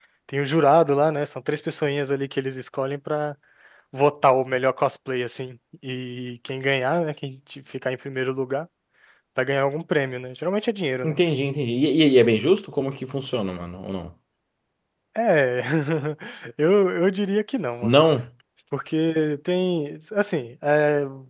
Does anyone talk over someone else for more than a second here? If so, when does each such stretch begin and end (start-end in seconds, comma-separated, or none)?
none